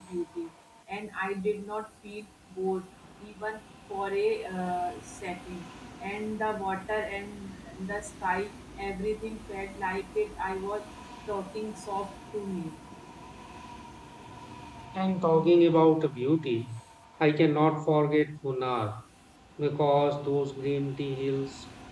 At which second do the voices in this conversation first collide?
none

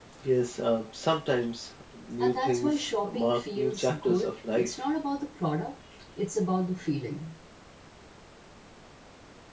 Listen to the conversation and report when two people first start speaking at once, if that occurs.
2 s

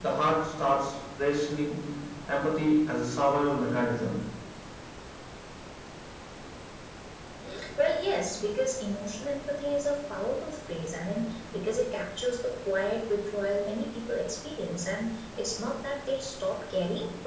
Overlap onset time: none

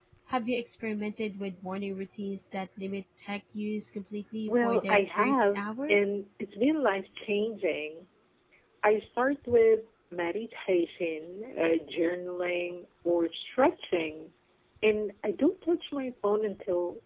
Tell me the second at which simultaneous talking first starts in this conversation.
4 s

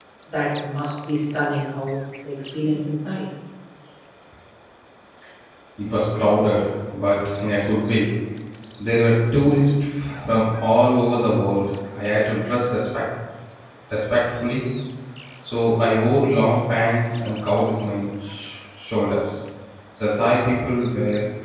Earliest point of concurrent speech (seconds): none

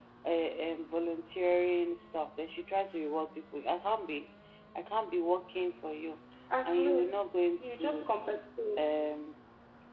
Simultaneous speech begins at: 7 s

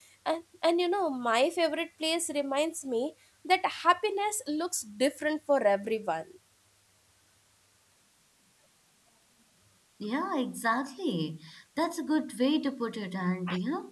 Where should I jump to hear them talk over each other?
none

